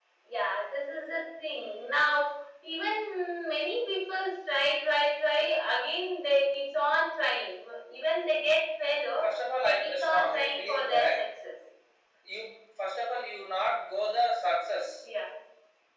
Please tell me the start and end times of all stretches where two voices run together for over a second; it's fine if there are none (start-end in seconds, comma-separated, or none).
9.6-11.2